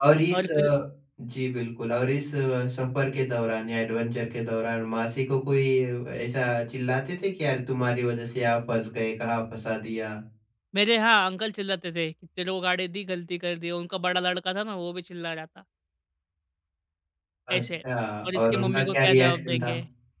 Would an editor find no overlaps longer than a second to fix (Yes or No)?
No